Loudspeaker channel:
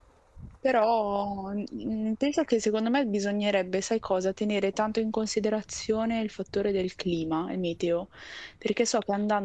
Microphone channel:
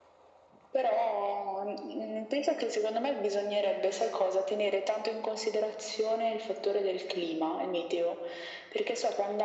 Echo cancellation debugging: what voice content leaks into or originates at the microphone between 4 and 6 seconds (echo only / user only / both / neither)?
echo only